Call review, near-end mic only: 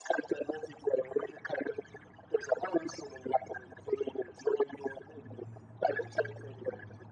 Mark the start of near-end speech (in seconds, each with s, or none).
none